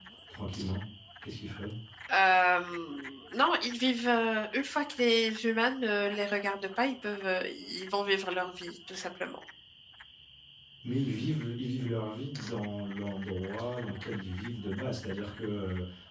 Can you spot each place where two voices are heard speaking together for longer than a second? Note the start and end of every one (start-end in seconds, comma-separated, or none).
none